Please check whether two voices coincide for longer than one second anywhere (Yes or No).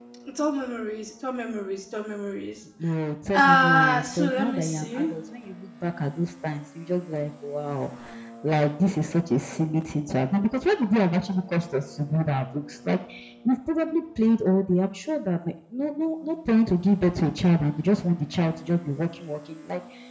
Yes